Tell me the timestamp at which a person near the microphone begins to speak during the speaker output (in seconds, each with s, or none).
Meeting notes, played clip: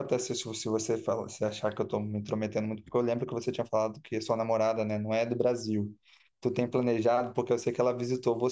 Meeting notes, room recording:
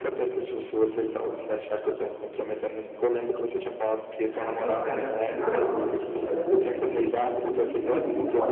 4.2 s